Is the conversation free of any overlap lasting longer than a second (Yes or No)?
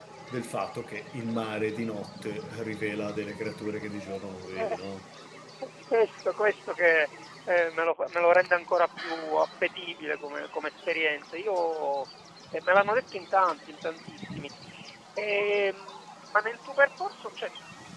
Yes